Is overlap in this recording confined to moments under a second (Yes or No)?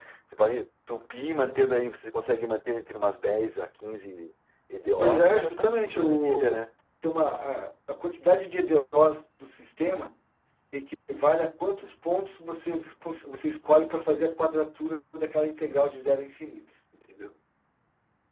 No